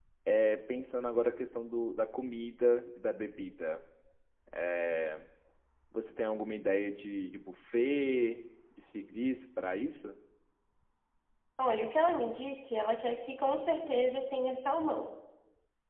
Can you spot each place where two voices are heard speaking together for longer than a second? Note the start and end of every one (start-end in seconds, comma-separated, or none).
none